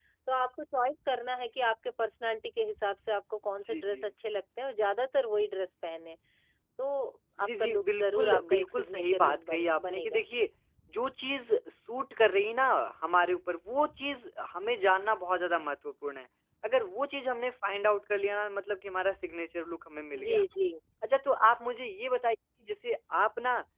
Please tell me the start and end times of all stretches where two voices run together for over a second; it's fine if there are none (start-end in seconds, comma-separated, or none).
7.4-10.2